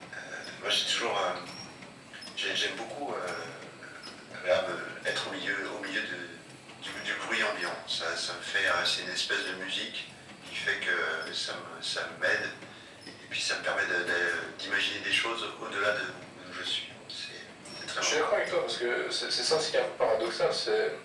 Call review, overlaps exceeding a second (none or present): none